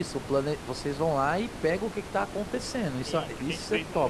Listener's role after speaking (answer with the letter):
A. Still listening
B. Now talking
B